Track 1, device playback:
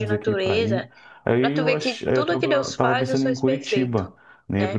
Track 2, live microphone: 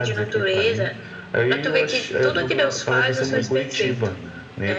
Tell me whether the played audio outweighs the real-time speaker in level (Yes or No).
Yes